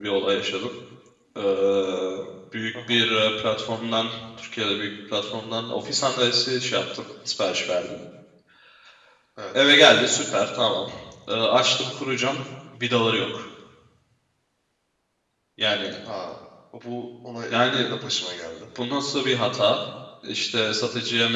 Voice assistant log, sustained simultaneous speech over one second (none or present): none